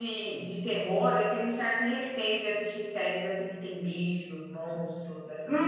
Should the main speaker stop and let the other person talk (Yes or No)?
Yes